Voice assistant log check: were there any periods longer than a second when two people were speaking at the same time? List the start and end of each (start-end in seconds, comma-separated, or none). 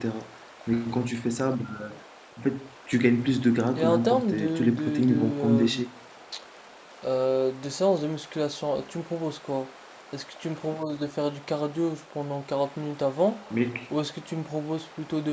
3.8-5.7